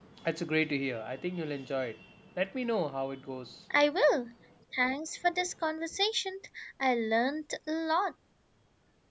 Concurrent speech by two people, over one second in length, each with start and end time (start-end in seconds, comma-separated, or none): none